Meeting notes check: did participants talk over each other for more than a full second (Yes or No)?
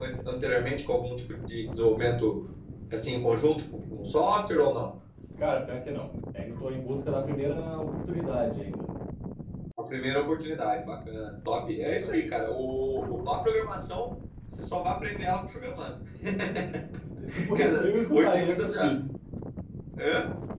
Yes